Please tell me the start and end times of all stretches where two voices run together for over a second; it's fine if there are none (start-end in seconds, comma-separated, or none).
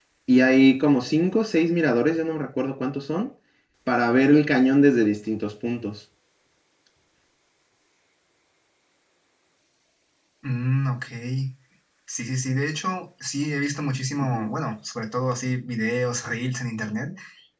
none